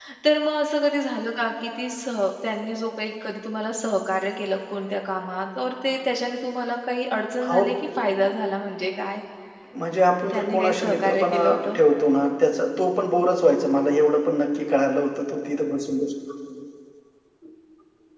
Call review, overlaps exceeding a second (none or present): present